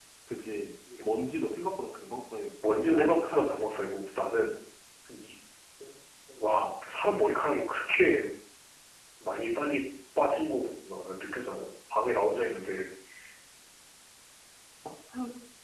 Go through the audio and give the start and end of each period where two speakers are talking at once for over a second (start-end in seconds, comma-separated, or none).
2.6-3.9